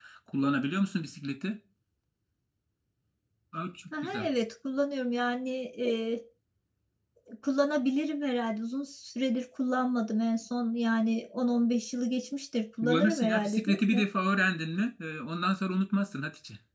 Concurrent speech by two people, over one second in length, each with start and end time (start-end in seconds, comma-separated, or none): 12.8-14.0